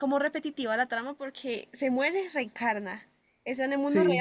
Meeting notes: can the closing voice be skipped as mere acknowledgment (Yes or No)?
No